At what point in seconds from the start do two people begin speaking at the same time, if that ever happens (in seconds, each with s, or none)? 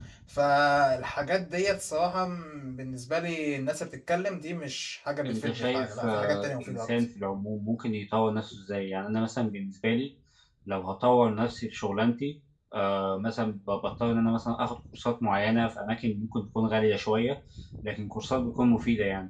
5.2 s